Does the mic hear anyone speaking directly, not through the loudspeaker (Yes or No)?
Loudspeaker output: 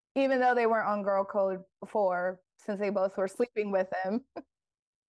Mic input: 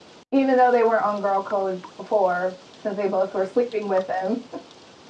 No